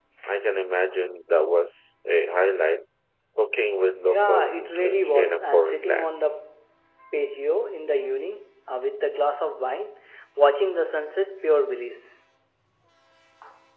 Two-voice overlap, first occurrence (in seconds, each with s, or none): 4.1 s